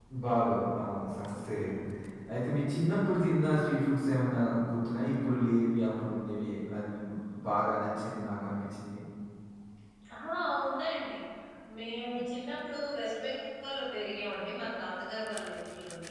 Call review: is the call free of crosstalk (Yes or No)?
Yes